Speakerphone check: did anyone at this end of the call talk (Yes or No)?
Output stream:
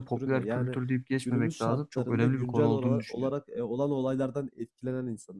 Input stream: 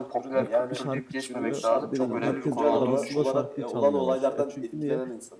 Yes